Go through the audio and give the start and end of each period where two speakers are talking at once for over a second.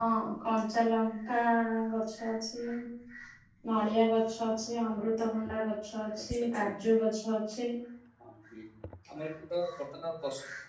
none

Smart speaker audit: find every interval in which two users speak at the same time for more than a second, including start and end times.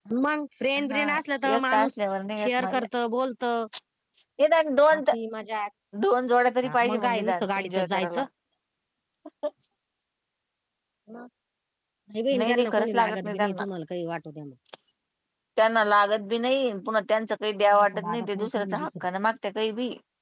6.7-8.2, 12.4-13.6, 17.6-19.1

